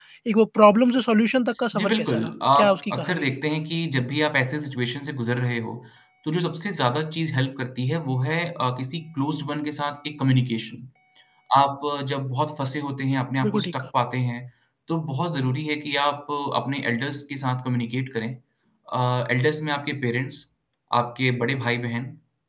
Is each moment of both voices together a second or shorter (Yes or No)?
No